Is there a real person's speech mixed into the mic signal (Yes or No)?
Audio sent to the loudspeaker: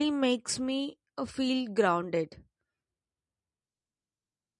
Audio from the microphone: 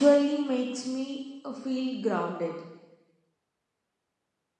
No